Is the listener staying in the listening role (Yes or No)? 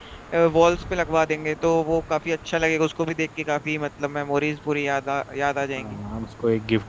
No